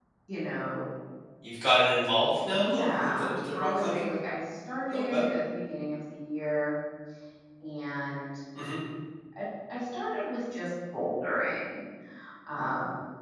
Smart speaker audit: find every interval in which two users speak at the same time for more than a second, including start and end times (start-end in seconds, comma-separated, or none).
2.5-4.0